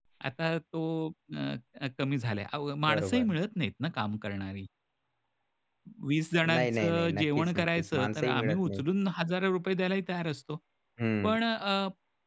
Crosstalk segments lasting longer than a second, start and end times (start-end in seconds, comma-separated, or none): 6.5-8.8